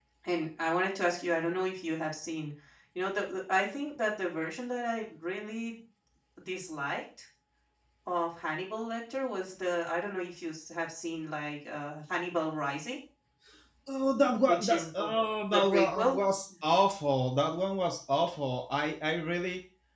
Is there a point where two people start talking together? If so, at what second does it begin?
14.5 s

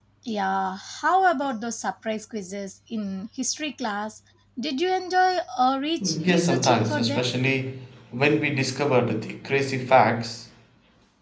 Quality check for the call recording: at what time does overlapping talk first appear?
6.0 s

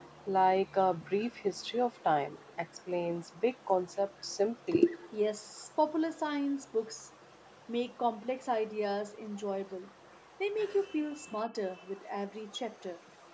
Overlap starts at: none

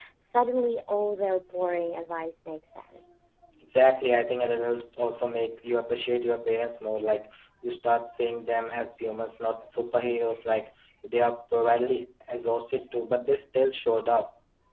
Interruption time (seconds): none

